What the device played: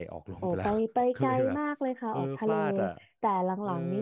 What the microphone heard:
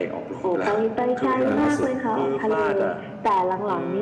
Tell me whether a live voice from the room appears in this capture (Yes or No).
Yes